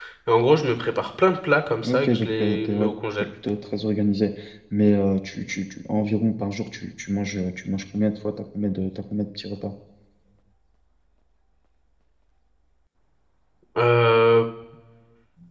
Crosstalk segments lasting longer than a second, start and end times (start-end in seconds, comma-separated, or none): 1.8-3.2